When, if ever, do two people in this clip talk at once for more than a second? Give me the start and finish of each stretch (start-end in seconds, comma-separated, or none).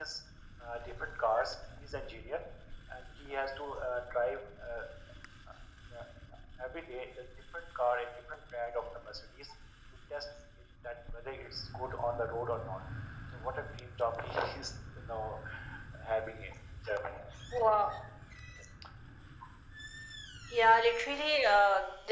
none